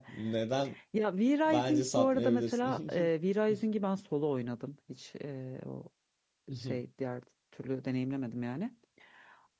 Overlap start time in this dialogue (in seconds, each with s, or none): 1.5 s